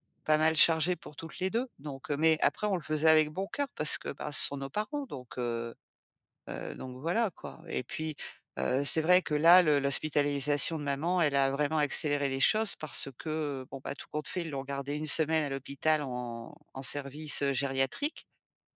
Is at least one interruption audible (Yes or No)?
No